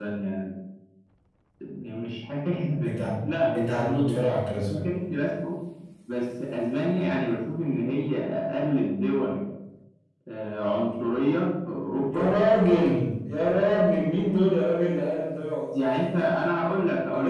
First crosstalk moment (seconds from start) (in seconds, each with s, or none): 2.9 s